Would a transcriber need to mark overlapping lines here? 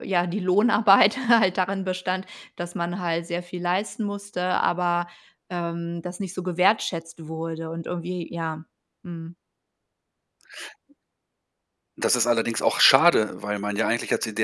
No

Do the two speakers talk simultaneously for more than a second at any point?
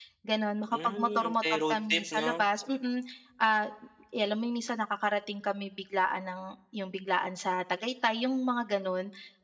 Yes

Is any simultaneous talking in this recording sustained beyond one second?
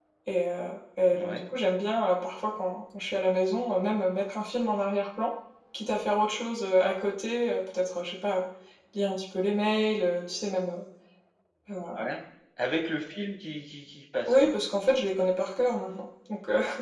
No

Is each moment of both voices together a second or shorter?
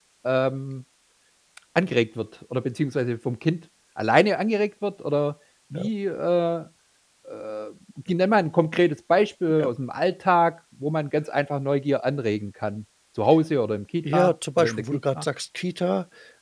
No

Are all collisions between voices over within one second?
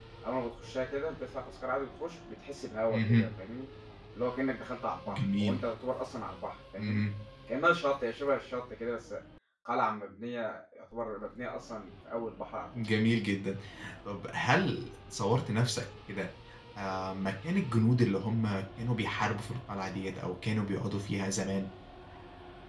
Yes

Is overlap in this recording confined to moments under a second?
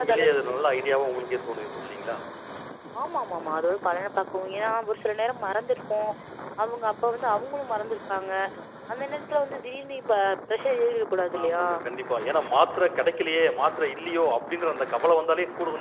Yes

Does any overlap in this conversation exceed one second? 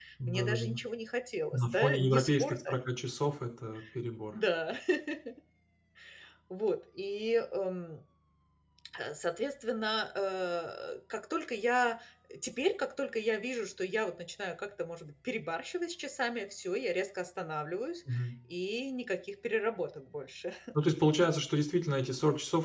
Yes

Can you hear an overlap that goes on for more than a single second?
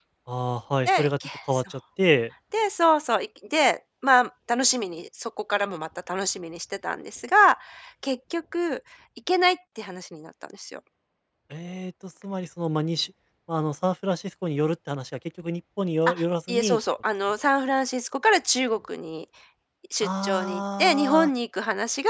Yes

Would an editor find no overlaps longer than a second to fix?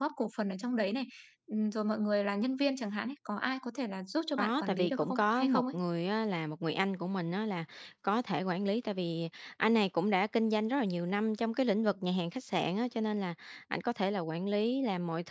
No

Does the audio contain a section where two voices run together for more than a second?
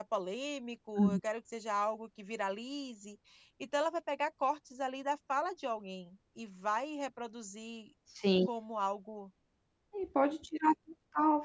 No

